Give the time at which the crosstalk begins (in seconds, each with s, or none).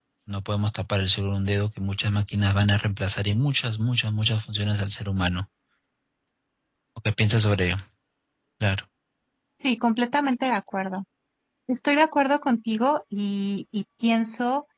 none